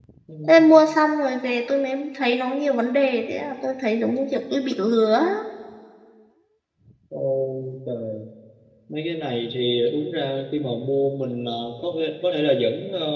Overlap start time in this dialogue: none

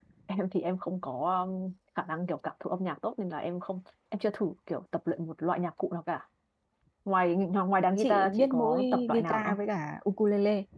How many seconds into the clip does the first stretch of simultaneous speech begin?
8 s

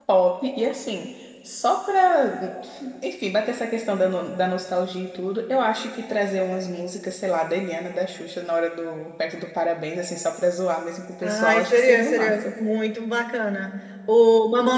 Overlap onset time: 11 s

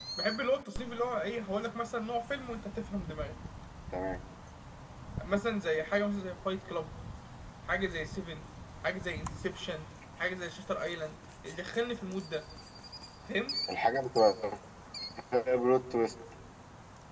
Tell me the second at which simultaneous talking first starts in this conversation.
none

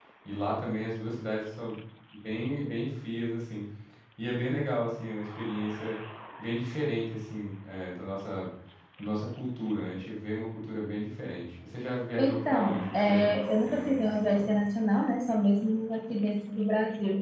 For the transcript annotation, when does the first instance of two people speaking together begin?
12 s

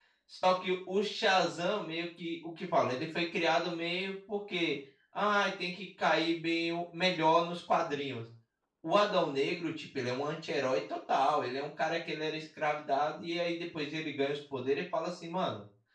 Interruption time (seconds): none

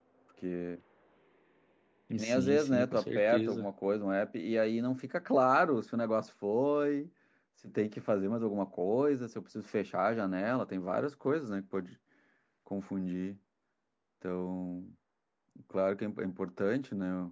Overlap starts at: 2 s

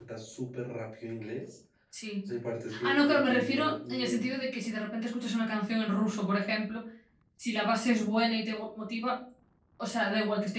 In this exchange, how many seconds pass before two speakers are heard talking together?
3 s

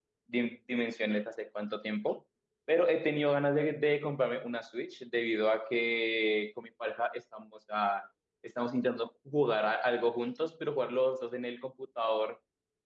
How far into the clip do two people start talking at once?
none

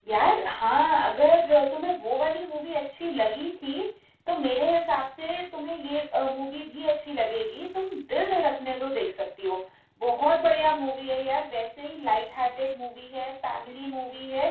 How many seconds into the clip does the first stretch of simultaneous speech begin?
none

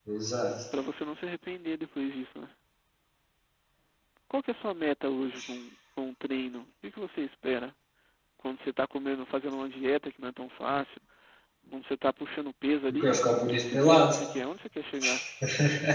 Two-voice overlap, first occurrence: 13 s

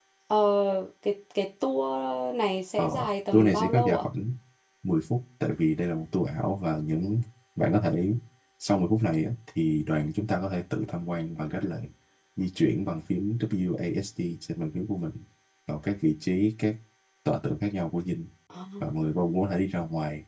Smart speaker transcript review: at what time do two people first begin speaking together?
3 s

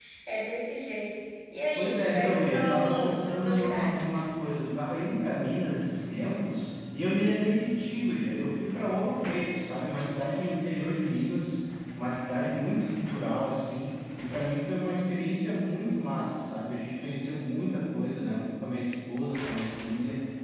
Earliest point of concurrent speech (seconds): 2 s

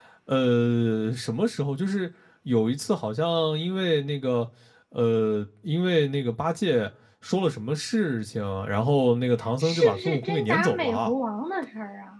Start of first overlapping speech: 10 s

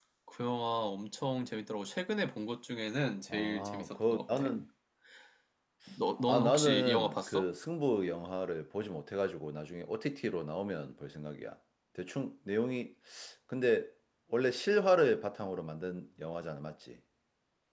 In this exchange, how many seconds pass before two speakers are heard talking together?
3 s

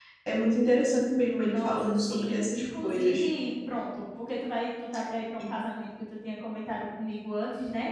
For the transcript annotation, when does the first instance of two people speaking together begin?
1 s

